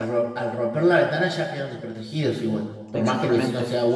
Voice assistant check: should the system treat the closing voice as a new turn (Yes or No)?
Yes